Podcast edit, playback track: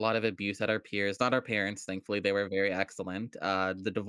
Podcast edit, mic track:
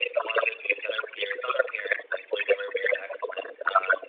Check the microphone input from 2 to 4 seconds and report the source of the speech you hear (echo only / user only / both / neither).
echo only